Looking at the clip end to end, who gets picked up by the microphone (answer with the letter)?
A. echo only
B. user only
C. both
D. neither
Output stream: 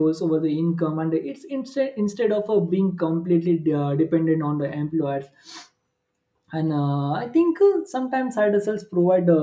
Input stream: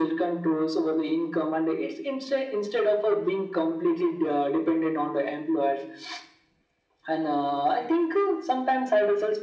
A